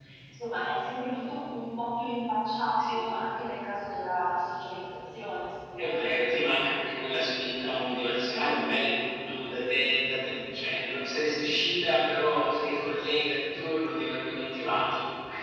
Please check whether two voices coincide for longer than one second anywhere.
No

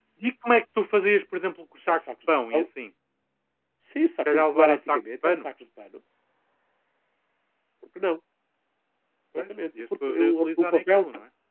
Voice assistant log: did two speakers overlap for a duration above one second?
Yes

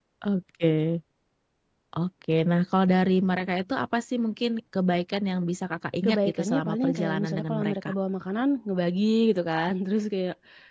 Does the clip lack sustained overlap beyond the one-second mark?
No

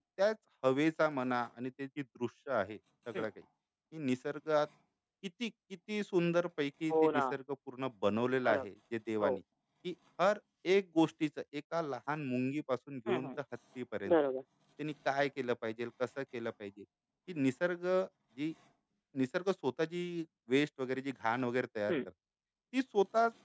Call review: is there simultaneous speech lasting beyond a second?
No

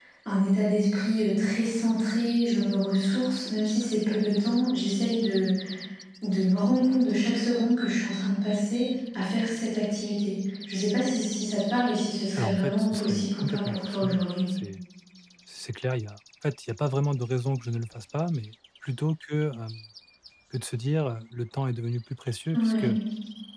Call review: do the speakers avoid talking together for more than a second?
No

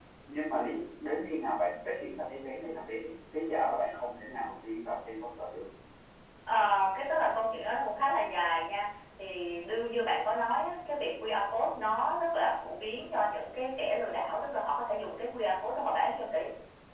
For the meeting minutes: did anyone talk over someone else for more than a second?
No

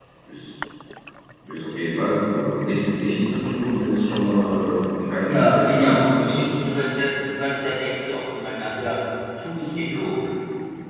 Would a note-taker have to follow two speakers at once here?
Yes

